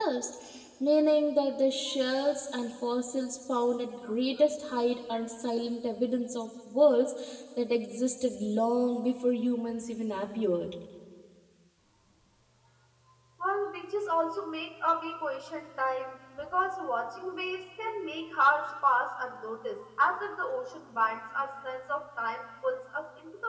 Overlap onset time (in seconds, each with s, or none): none